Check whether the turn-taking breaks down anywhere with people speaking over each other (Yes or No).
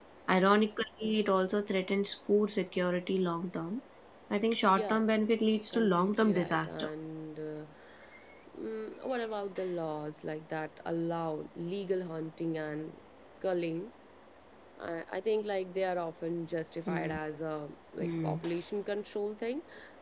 Yes